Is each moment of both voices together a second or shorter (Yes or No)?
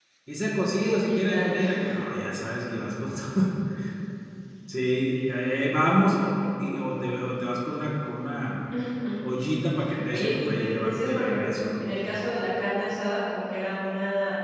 No